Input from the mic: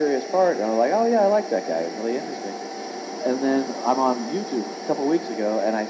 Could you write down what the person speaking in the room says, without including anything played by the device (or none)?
none